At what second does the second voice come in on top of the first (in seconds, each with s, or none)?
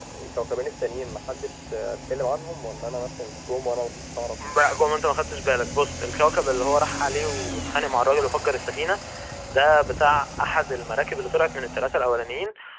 none